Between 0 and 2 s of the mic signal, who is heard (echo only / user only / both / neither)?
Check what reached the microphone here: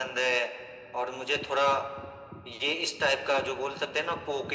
echo only